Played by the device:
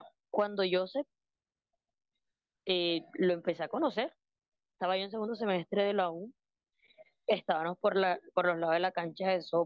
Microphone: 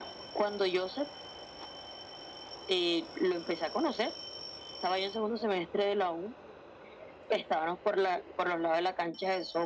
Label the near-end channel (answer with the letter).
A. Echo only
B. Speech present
A